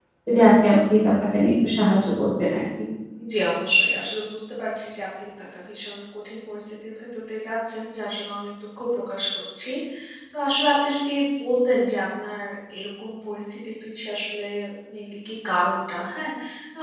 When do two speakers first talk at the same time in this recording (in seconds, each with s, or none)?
none